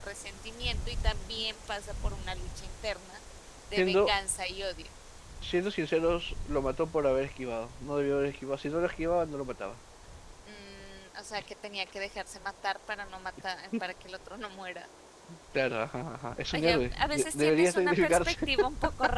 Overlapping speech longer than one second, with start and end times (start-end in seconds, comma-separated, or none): 16.5-18.5